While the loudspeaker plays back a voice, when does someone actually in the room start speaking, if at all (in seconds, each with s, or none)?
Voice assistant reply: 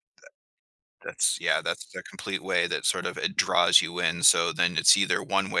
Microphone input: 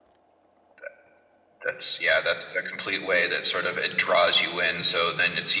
none